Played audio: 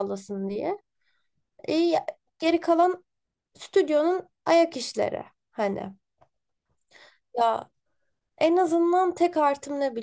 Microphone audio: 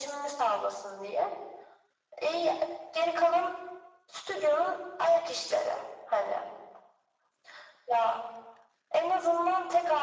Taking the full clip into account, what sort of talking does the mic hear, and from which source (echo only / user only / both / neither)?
echo only